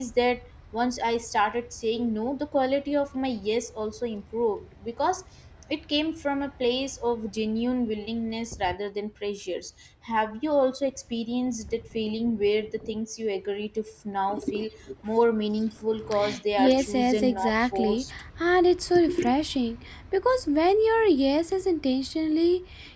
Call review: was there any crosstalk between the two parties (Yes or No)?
Yes